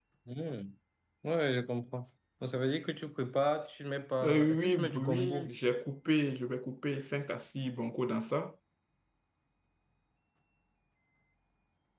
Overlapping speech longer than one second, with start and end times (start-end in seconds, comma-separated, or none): 4.2-5.5